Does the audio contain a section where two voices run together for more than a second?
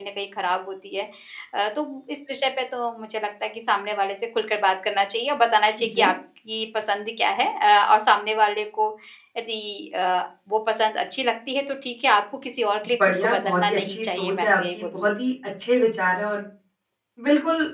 Yes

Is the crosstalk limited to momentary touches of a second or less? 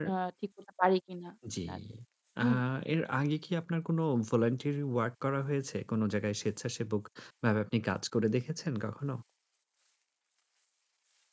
Yes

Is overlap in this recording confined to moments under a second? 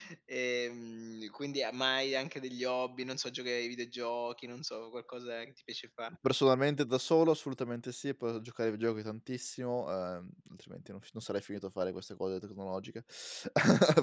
Yes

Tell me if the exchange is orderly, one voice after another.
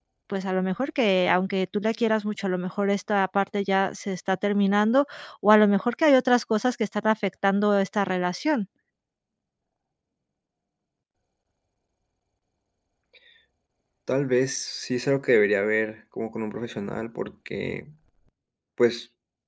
Yes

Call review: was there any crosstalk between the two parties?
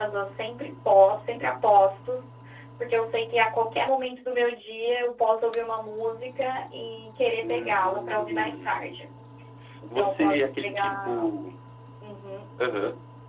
Yes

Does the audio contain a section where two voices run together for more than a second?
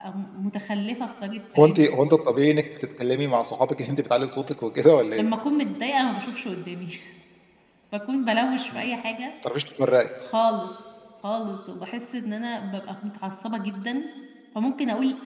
No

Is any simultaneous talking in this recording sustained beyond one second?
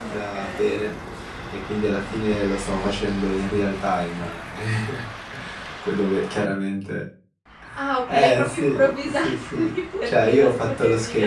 Yes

